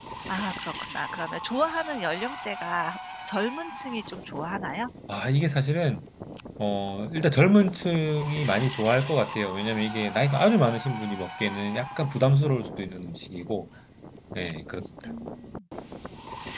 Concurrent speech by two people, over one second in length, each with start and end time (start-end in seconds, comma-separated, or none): none